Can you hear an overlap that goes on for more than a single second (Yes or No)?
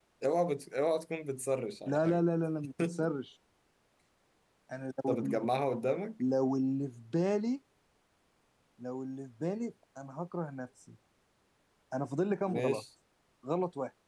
No